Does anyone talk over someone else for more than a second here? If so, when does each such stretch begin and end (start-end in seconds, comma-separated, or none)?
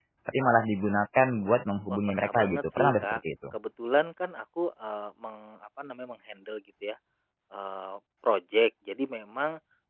1.9-3.2